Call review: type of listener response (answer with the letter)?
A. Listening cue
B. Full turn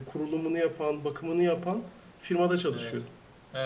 B